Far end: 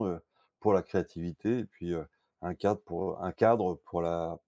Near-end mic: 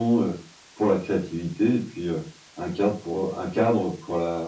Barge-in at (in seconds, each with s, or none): none